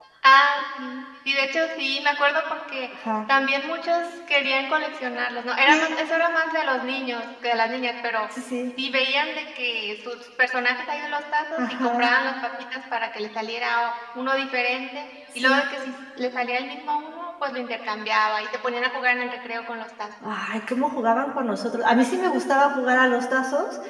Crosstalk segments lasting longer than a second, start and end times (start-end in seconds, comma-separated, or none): none